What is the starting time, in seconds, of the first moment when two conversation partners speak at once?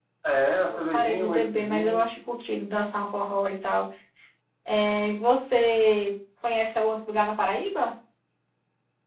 1 s

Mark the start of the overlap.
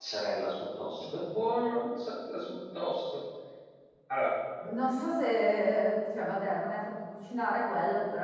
none

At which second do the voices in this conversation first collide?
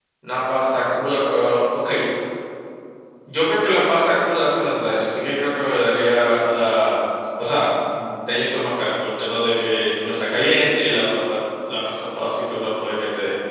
none

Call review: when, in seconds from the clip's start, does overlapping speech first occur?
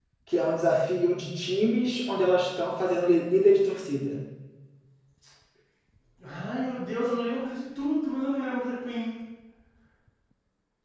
none

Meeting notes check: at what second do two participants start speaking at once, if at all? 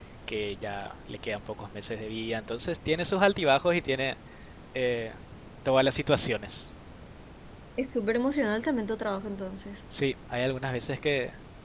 none

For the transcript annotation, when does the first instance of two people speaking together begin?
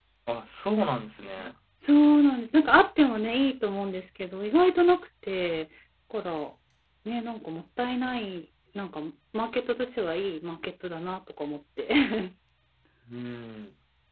none

